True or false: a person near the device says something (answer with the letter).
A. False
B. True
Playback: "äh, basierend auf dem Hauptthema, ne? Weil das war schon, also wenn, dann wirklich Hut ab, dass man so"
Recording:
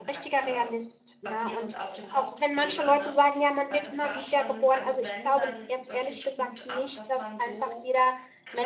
B